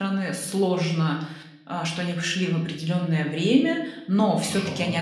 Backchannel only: Yes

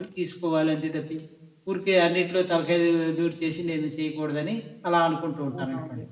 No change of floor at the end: No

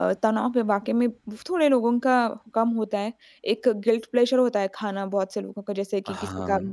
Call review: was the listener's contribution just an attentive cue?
Yes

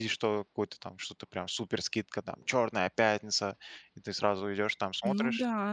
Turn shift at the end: Yes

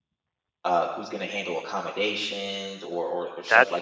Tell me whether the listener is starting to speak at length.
Yes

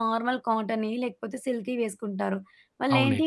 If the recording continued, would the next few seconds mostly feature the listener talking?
No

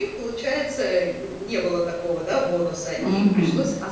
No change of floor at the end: Yes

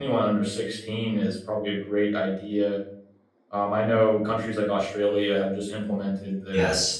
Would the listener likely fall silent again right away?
Yes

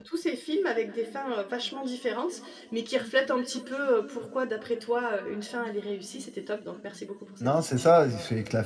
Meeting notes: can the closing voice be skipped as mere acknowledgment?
No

